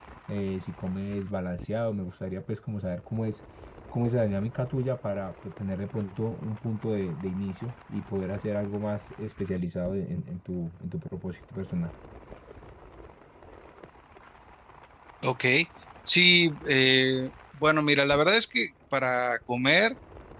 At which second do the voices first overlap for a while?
none

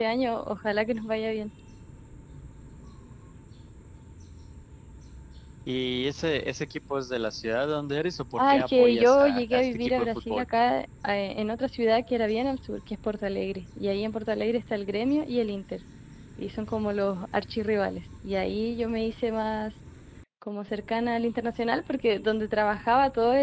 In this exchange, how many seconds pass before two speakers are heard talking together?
8 s

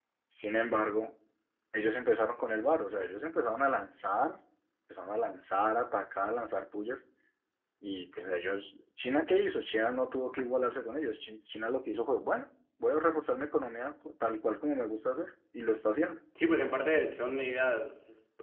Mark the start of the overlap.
none

